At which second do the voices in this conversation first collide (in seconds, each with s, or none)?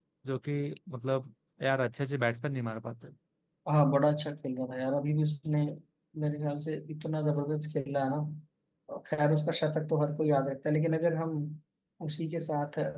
none